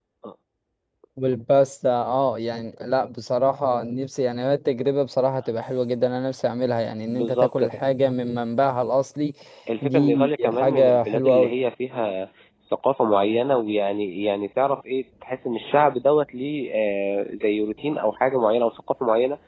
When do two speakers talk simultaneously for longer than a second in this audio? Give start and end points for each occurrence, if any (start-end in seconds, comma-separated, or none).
9.8-11.5